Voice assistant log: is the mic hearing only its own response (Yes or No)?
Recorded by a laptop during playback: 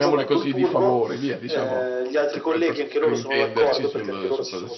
No